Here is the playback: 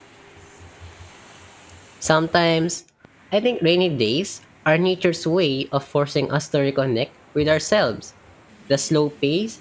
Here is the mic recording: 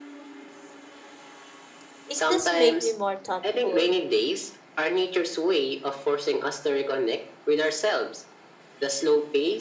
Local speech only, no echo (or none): it does make me more thoughtful.